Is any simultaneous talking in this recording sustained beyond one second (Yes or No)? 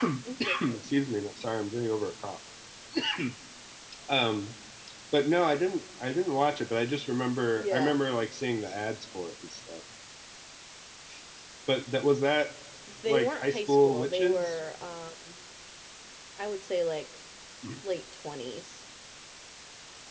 Yes